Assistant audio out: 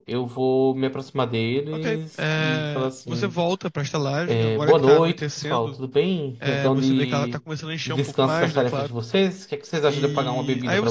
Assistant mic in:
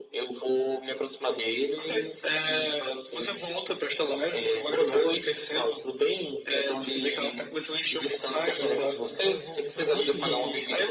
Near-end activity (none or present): present